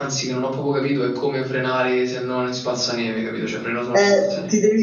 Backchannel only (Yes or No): No